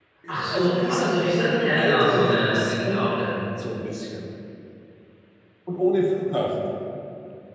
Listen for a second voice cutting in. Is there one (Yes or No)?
Yes